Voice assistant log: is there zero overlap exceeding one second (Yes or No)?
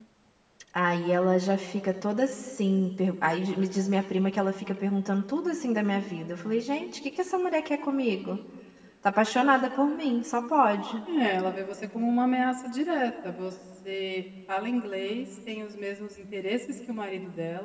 Yes